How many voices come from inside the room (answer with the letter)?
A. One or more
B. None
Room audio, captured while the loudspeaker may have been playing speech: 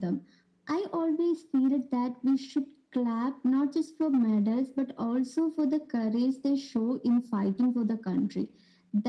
B